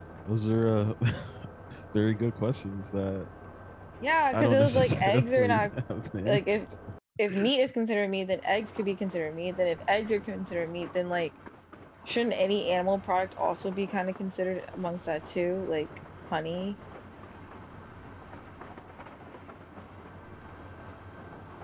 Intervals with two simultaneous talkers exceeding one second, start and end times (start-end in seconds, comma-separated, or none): 4.3-5.7